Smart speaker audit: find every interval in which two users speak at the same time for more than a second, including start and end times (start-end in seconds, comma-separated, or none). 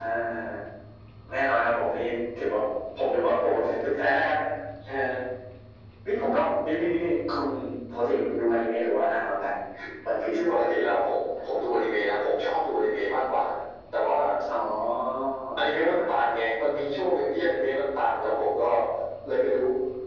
none